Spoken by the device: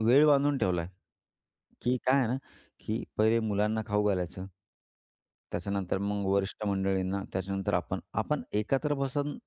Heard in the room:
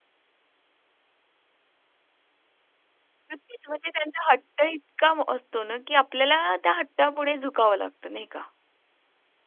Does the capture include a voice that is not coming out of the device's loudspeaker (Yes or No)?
Yes